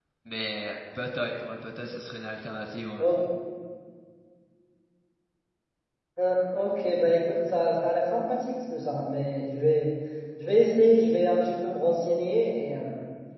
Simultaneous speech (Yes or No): No